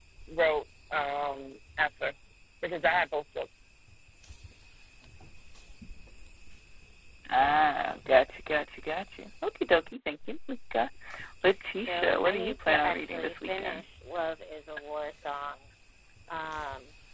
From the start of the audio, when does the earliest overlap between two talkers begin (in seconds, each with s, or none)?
11.9 s